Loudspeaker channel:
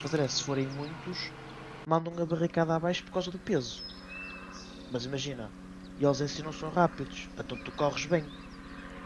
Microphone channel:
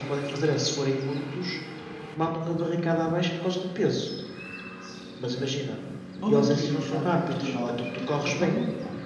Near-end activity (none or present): present